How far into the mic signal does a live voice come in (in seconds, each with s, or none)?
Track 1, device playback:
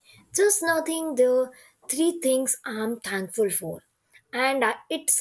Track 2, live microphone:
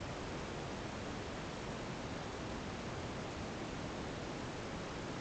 none